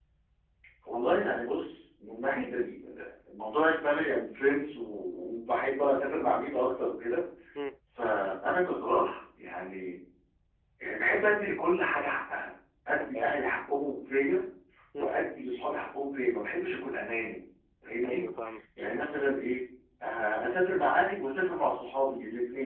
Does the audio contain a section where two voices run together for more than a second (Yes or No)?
No